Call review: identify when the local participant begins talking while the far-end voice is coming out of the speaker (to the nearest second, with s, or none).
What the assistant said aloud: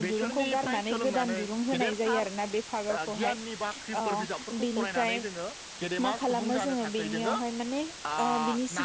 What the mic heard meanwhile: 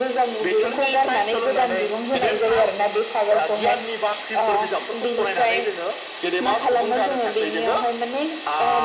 none